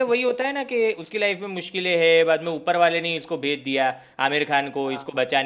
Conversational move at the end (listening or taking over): listening